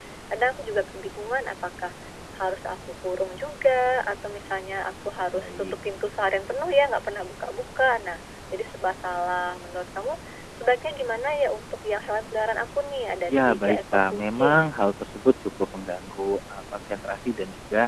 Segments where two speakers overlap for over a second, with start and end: 13.3-14.6

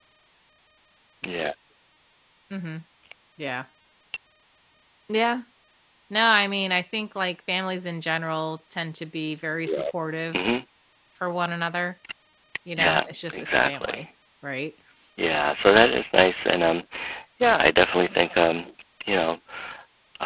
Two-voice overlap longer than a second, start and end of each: 12.8-14.0

